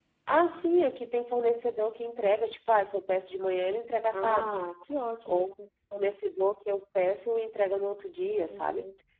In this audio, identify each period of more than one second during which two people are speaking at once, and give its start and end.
none

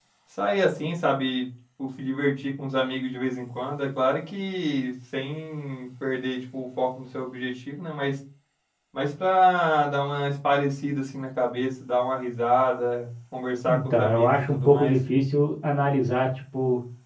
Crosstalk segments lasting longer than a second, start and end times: 13.7-14.9

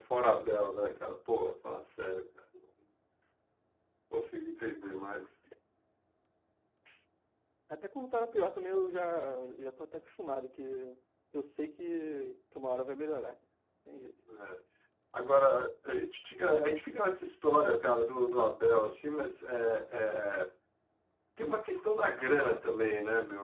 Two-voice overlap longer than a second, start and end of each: none

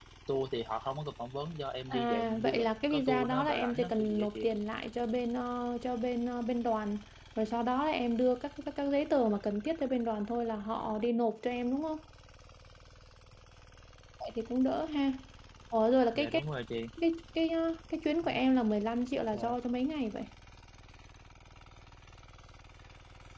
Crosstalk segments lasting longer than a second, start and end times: 1.9-4.3

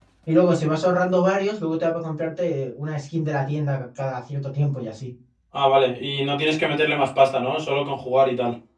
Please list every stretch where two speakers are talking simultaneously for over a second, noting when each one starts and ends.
none

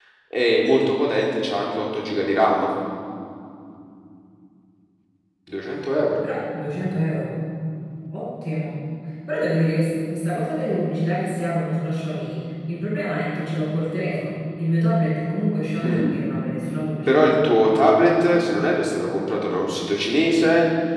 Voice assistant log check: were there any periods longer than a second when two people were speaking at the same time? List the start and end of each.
none

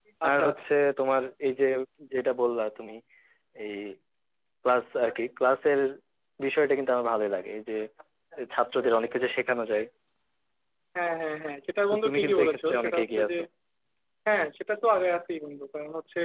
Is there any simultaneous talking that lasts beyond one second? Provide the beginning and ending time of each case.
11.9-13.3

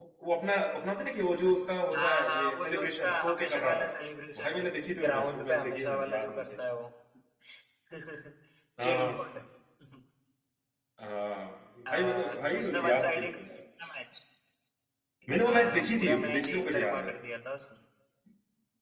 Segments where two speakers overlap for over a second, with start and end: 1.9-3.9, 4.4-6.6, 11.9-13.4, 15.4-17.1

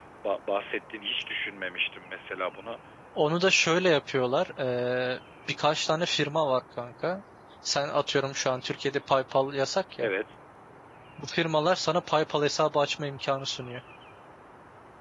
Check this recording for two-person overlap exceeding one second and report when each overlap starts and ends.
none

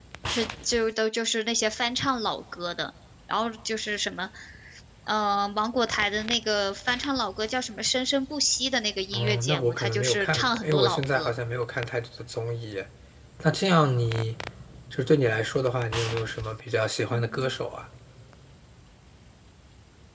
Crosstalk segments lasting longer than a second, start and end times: 9.1-11.3

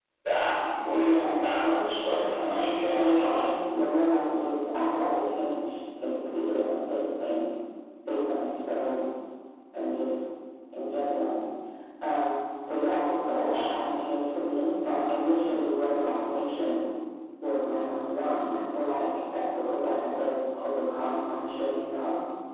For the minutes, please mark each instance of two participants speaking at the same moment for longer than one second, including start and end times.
0.9-3.5

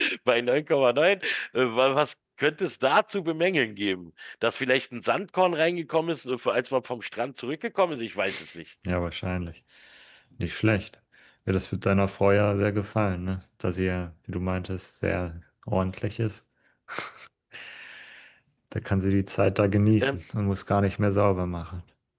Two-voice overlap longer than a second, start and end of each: none

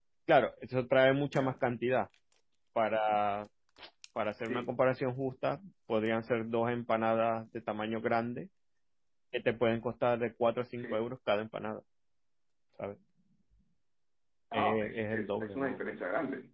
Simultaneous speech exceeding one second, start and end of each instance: 14.5-16.0

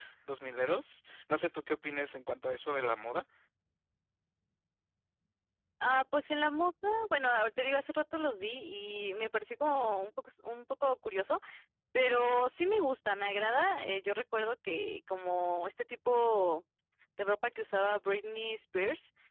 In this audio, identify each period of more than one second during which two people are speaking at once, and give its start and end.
none

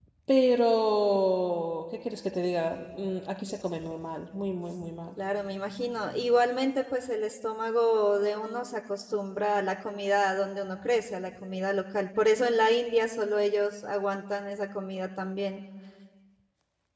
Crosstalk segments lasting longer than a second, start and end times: none

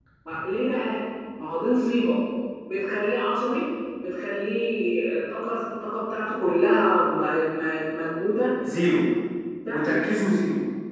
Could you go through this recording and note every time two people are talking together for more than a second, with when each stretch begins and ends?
none

